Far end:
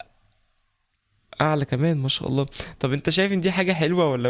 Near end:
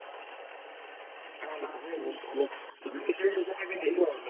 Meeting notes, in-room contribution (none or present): none